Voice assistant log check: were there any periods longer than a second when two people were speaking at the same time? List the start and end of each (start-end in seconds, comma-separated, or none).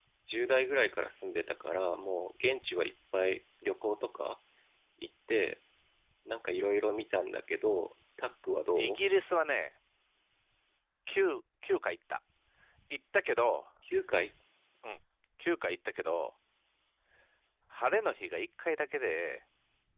none